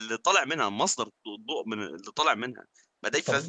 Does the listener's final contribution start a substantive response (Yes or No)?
No